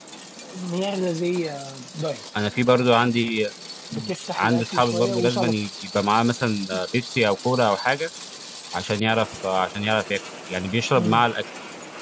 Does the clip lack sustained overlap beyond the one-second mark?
No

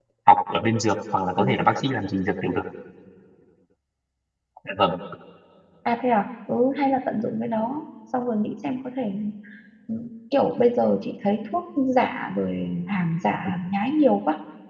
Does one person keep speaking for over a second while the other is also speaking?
No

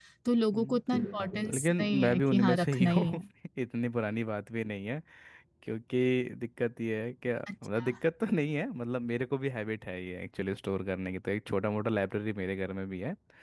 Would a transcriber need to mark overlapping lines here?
Yes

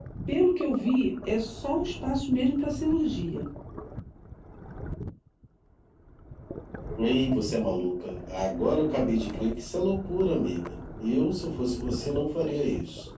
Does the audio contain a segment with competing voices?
No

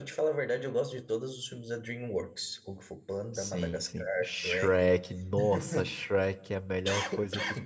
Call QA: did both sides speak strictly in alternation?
No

